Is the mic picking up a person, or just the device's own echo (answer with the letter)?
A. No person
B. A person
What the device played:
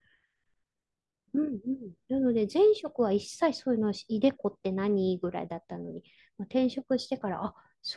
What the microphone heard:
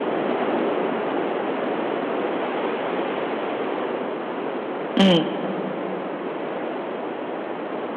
B